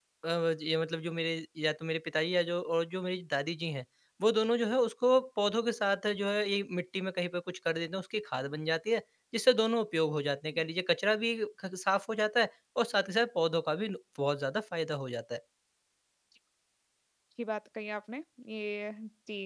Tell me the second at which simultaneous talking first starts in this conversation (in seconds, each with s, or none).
none